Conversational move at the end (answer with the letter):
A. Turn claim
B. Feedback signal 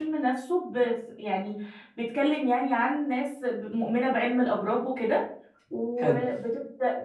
B